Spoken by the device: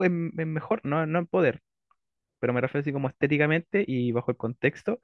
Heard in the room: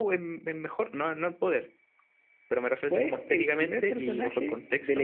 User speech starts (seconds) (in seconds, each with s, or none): 2.8 s